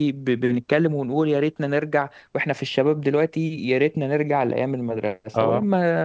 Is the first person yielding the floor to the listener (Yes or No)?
No